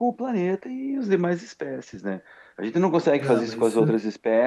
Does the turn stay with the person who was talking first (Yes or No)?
Yes